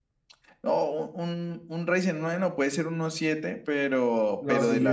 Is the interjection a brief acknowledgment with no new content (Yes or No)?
Yes